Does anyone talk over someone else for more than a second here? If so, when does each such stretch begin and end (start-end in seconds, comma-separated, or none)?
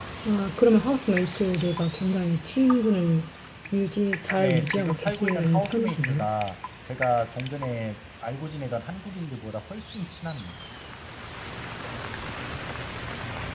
4.4-6.3